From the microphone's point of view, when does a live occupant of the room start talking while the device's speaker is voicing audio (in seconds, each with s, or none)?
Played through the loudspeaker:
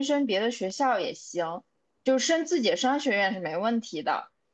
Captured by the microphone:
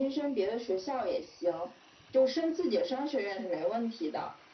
none